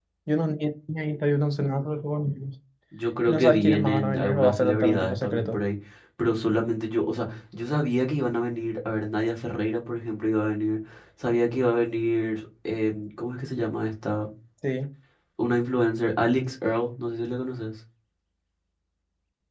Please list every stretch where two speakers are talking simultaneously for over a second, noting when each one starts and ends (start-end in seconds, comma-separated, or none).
3.3-5.6